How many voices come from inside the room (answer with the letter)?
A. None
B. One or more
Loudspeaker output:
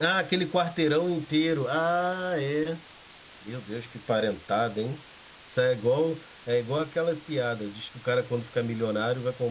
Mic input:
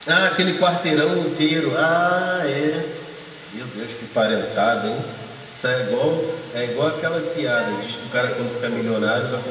B